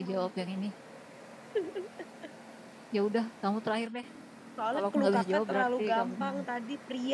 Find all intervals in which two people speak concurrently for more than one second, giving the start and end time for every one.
4.7-6.4

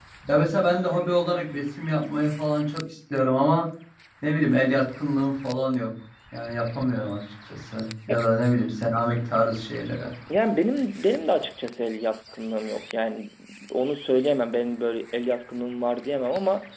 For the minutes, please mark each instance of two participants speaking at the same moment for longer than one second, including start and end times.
none

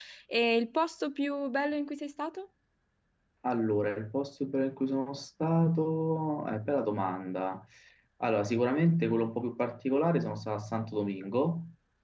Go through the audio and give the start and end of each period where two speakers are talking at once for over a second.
none

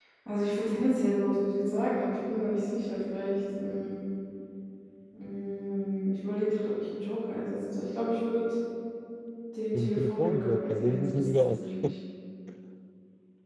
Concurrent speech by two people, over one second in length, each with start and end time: 9.8-11.9

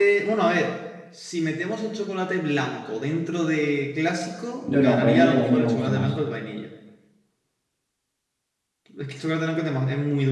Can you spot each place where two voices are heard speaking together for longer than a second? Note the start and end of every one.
4.6-6.1

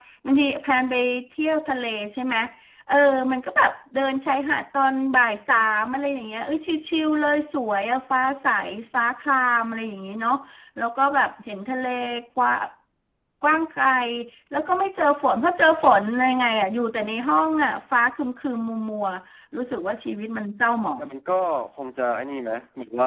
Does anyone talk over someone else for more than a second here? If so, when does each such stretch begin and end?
none

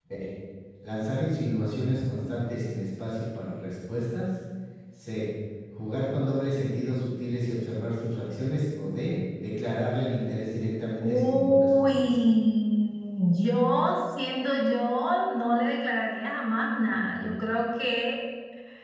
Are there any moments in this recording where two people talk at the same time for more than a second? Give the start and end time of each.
11.0-12.2

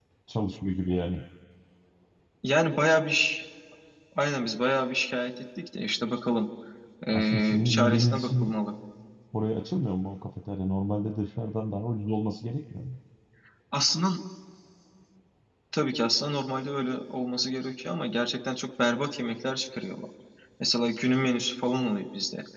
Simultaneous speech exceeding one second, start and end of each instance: 7.1-8.5

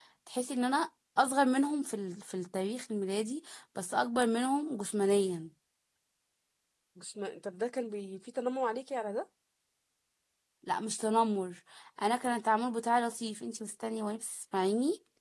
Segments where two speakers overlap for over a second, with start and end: none

